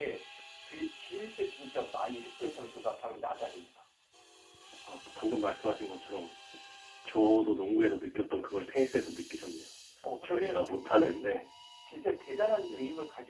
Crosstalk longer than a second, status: present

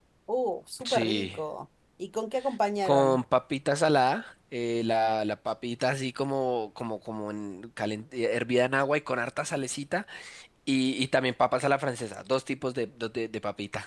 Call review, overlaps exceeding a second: none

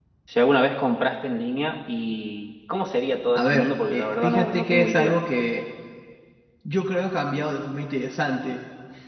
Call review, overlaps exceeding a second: present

